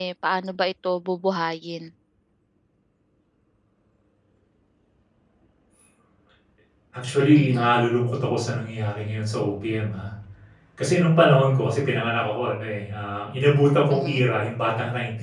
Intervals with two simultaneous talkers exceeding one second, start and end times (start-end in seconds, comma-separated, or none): none